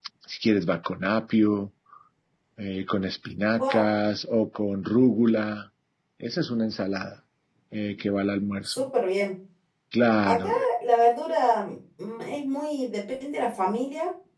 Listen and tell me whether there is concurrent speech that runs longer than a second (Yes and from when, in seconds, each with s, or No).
No